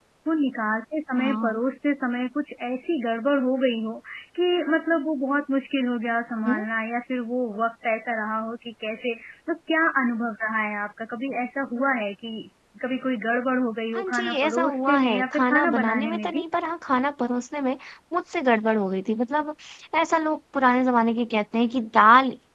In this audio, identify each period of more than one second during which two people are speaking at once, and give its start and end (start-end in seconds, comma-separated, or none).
13.9-16.4